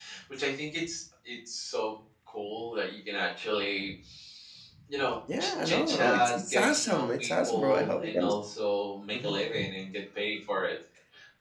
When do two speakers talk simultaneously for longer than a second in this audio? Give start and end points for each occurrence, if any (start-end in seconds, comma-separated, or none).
5.4-8.3